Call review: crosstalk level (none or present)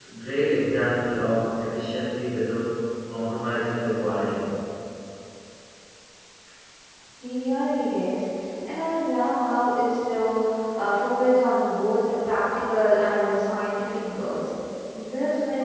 none